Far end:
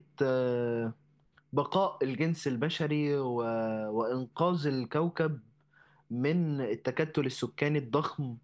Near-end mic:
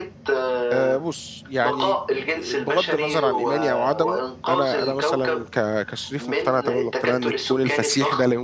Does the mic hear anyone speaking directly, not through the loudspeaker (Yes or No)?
Yes